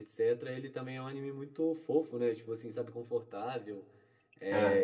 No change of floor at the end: Yes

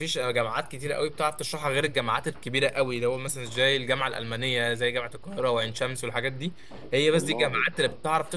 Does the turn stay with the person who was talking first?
Yes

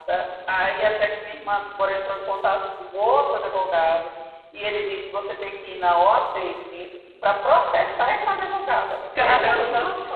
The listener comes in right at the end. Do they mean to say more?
Yes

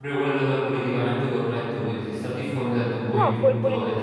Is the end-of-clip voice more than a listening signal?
Yes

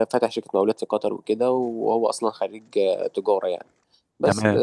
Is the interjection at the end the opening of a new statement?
No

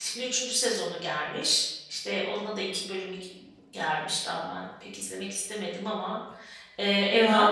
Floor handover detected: No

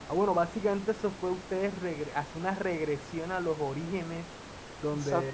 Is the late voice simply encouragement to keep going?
Yes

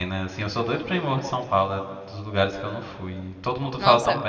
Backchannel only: No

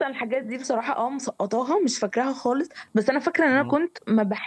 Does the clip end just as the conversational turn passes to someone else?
No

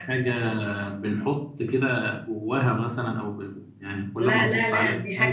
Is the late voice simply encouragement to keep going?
No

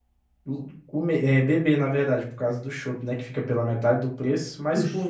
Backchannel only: Yes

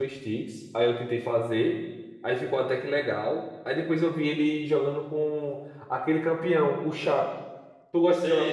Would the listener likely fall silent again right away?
No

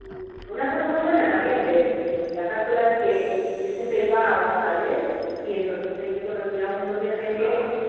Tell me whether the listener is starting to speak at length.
No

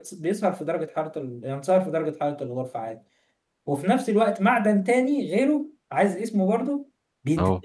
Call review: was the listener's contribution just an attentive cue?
Yes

